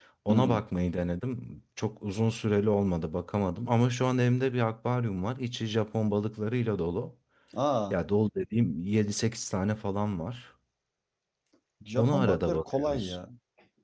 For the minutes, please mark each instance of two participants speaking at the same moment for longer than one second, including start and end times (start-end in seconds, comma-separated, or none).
11.9-13.2